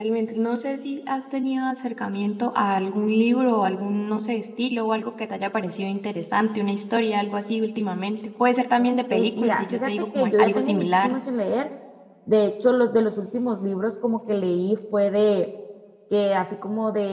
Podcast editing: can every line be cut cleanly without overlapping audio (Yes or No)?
No